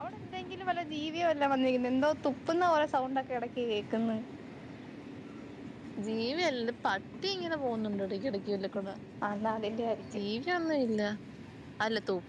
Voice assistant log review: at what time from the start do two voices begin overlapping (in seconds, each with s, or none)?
none